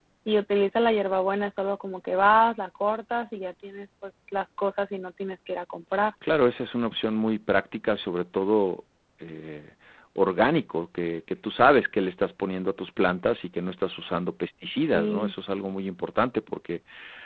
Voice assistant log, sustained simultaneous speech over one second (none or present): none